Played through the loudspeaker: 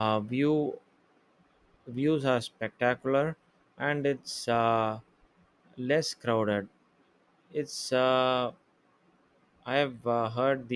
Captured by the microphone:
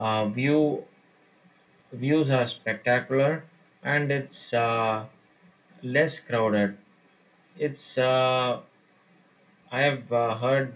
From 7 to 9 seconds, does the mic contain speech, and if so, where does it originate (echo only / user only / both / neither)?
echo only